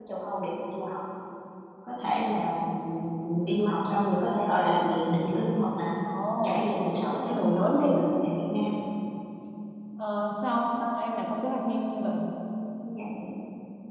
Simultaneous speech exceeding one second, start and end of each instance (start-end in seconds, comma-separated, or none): 6.4-8.0